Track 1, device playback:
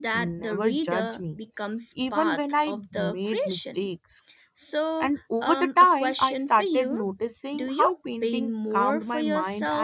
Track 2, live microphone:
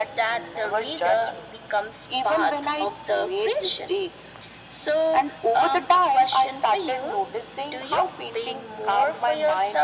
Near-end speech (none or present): none